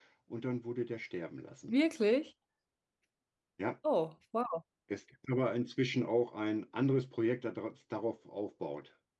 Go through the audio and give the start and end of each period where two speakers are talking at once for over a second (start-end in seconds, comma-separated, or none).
none